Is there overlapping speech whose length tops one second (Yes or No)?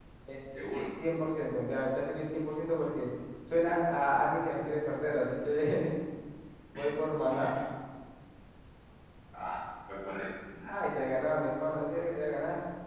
No